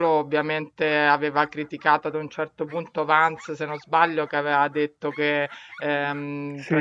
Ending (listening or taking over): listening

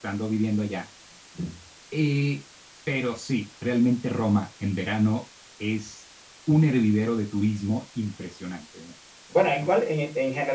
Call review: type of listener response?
taking over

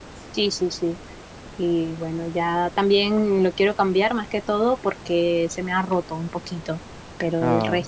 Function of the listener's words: listening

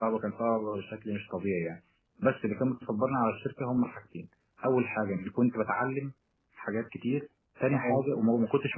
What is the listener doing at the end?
listening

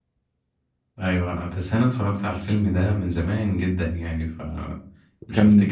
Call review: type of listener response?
taking over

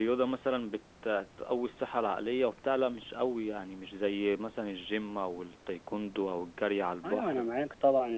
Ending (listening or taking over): taking over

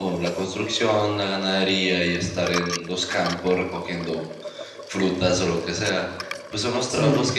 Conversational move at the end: listening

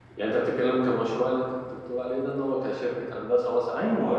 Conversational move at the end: taking over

